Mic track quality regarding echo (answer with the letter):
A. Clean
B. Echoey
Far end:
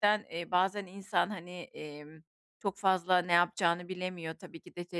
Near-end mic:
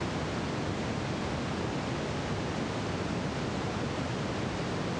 A